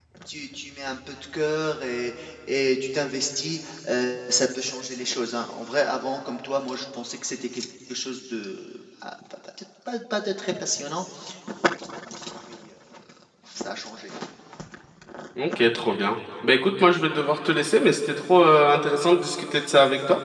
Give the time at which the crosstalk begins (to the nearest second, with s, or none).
none